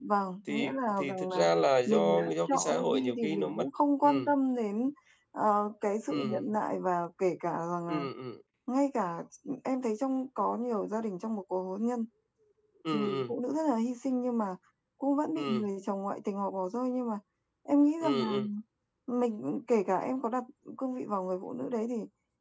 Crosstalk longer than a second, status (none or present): present